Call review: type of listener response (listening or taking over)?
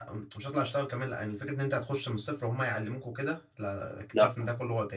listening